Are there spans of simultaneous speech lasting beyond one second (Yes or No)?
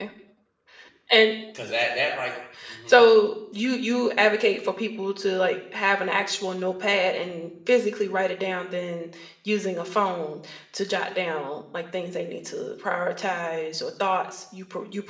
No